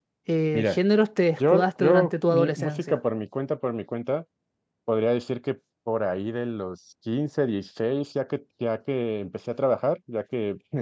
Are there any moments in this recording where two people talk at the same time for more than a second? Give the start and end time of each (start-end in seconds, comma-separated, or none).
1.5-2.8